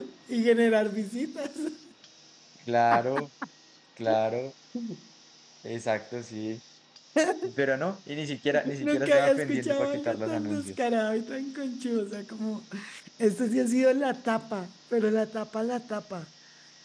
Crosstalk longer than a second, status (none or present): present